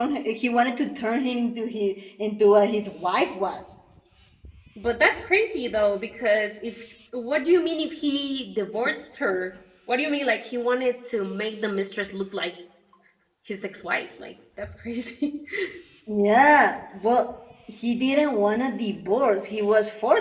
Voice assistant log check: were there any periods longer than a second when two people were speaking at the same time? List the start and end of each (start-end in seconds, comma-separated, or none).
none